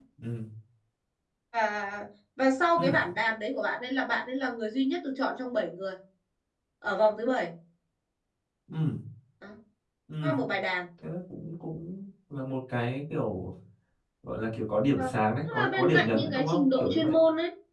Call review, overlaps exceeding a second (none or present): present